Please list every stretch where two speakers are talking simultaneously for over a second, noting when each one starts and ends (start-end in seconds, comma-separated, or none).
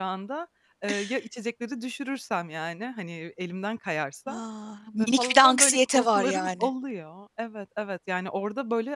5.0-6.7